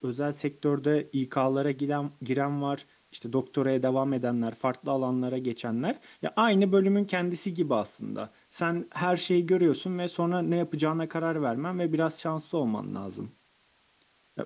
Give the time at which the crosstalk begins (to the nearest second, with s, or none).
none